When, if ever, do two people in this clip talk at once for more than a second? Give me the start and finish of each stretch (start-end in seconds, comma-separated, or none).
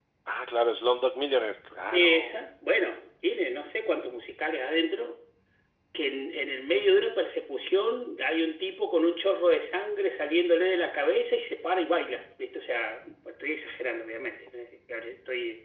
none